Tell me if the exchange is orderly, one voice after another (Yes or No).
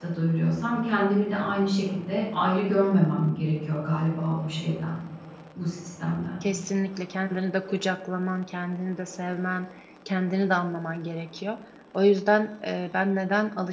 Yes